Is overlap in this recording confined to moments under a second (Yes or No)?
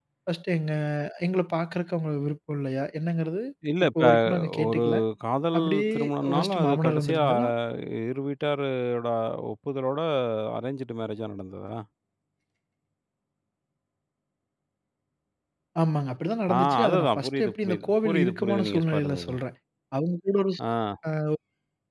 No